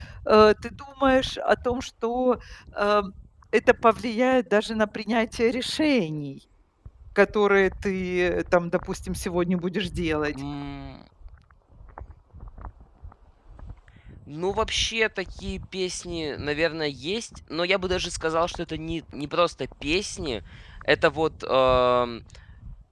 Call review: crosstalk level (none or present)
none